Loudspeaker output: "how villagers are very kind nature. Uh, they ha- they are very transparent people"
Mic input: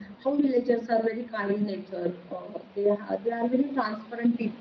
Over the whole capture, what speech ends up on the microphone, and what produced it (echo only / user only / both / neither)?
echo only